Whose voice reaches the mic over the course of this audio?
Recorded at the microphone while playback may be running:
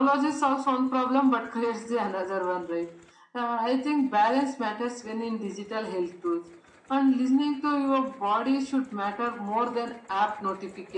echo only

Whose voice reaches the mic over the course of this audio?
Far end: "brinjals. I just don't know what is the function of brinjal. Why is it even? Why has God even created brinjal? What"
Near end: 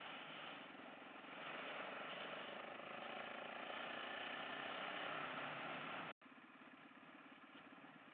neither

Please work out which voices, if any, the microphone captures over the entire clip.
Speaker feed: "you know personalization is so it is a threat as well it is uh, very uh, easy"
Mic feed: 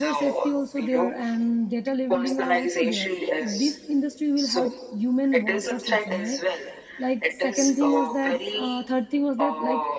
both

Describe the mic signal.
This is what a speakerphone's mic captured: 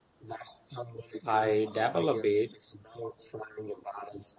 both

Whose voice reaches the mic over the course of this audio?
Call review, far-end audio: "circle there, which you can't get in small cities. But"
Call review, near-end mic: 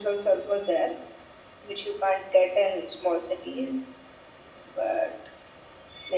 echo only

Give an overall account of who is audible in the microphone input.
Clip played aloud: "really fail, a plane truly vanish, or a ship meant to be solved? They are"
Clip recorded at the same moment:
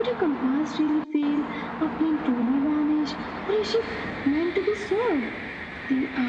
echo only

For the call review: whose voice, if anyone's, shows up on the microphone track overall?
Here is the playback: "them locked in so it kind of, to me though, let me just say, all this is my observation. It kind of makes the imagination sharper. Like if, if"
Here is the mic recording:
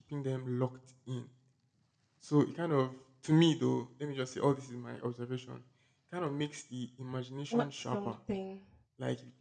both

